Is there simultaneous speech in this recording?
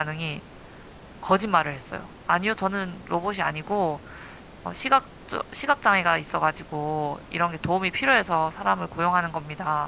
No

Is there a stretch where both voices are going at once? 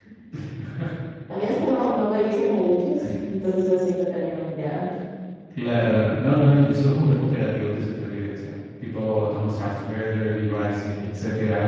No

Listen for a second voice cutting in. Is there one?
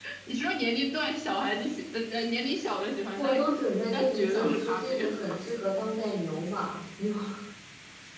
Yes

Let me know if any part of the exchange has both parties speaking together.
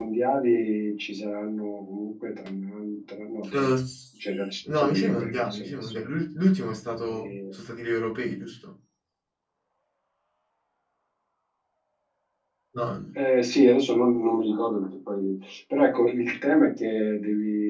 Yes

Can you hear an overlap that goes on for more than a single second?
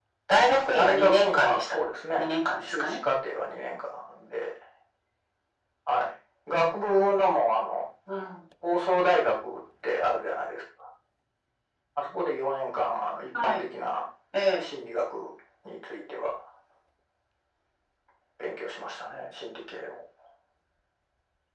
Yes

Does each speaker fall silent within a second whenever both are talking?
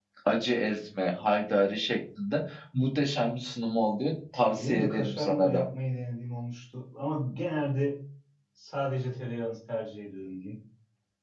No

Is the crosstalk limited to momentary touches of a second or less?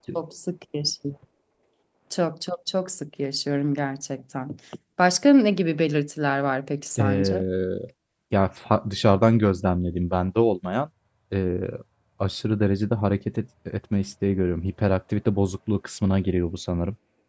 Yes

